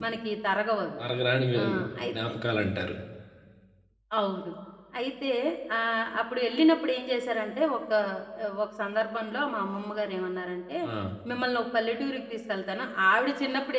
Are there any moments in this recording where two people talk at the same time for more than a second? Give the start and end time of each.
none

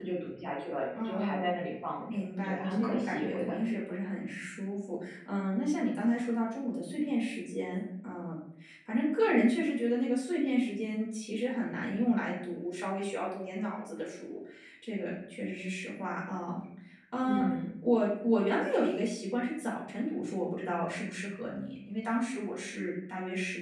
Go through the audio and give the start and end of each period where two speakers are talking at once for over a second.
2.1-3.8

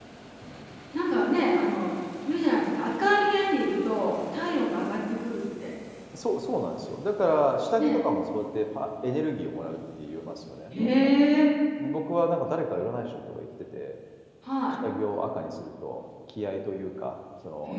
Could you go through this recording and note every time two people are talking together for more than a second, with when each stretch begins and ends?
none

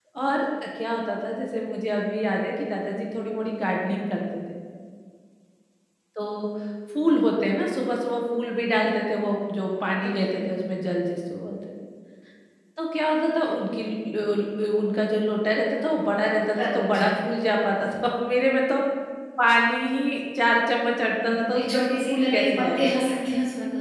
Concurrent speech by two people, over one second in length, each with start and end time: 21.3-22.9

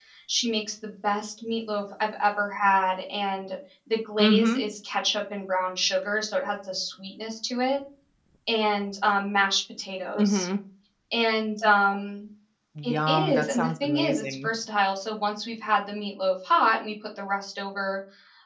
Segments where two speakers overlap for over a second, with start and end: 12.8-14.5

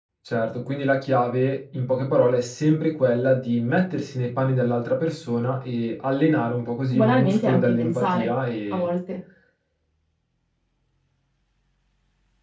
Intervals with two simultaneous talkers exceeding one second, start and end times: 6.9-8.3

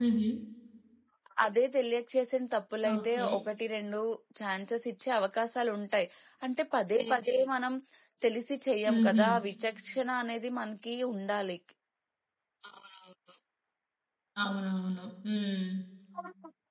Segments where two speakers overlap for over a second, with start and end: none

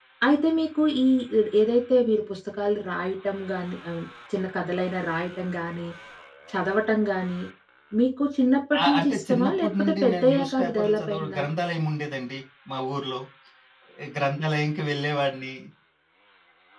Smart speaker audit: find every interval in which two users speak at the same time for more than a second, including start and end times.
8.8-11.4

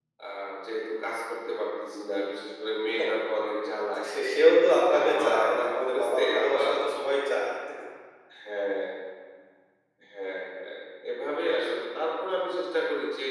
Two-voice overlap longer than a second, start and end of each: 4.9-6.7

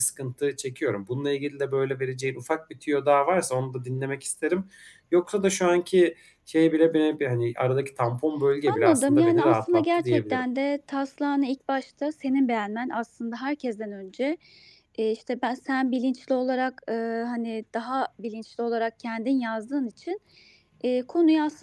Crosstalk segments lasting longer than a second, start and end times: 8.7-10.4

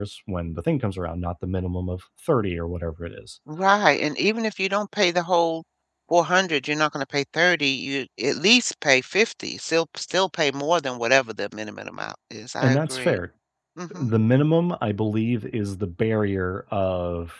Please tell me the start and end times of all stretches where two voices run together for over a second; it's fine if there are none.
none

